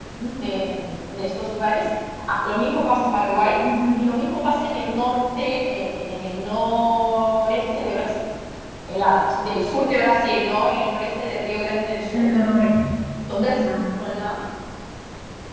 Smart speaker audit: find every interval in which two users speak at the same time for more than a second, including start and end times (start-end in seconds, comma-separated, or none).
none